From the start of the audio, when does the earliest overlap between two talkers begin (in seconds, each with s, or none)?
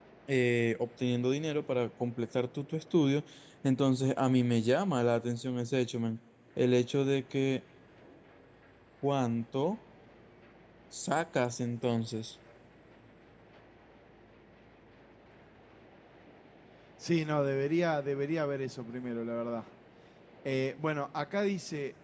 none